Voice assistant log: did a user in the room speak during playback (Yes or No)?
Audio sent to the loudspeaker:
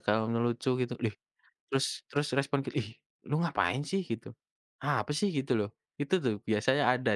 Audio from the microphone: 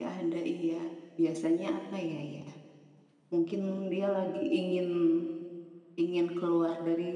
Yes